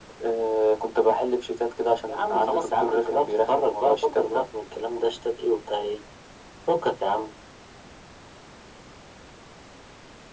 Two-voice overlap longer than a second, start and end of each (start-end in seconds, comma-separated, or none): 2.1-4.4